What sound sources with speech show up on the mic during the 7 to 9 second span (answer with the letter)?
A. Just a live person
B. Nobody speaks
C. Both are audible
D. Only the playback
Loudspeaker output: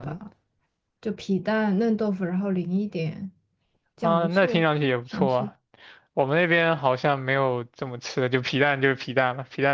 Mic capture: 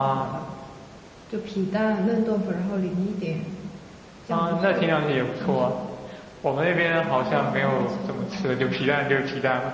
C